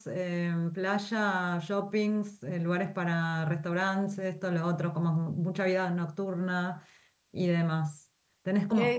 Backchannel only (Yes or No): Yes